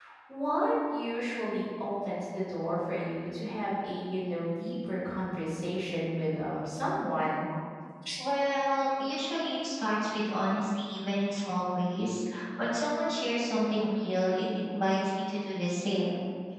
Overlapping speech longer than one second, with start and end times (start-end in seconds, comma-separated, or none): none